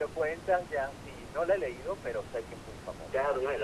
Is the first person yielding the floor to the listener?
Yes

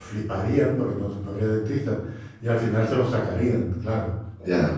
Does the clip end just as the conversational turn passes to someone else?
Yes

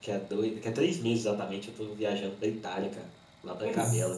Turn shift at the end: Yes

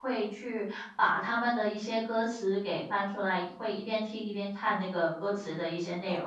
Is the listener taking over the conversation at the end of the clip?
Yes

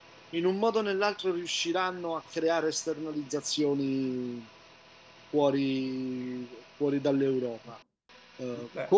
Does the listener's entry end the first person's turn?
No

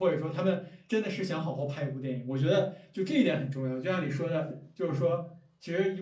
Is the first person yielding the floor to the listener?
No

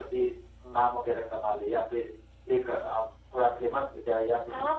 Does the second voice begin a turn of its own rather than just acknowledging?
Yes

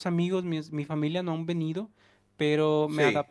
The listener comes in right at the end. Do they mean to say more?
No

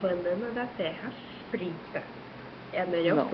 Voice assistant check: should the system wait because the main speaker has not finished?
Yes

